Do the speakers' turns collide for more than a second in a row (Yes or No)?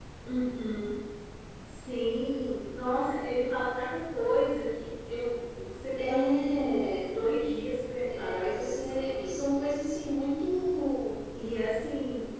Yes